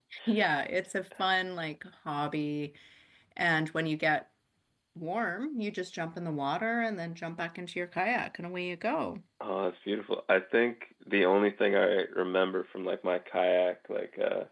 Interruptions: none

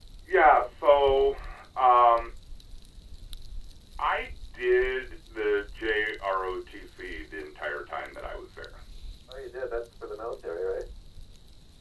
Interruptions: none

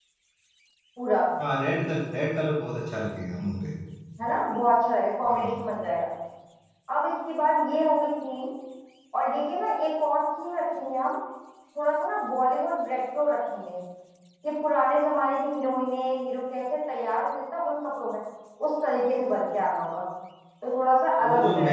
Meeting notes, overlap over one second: none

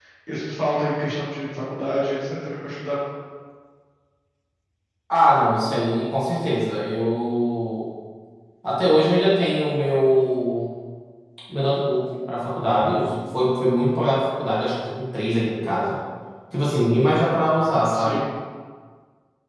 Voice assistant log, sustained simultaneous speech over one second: none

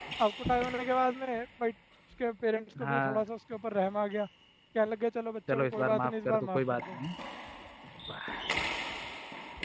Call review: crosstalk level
present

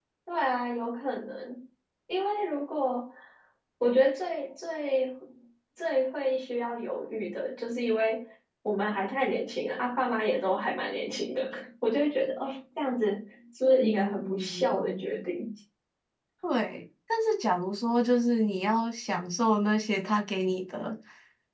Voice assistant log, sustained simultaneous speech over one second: present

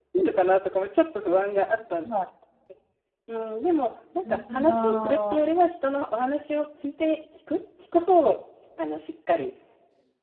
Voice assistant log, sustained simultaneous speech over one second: present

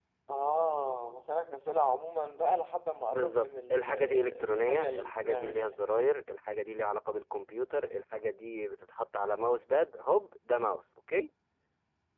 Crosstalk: present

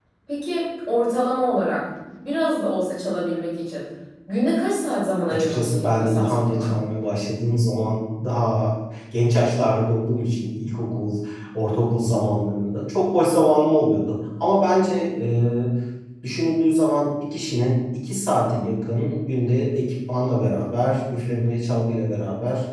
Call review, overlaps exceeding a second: present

